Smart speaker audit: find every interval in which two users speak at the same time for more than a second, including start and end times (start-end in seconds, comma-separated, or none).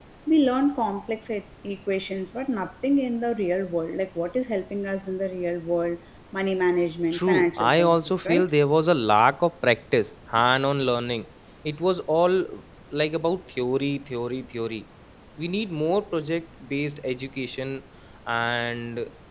7.1-8.5